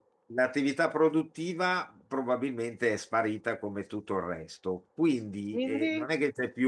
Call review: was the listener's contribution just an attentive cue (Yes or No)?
Yes